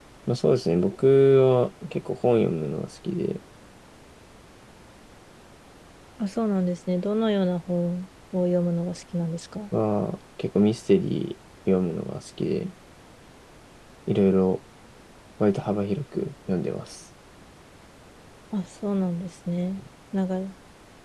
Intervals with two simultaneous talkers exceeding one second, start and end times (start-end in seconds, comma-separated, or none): none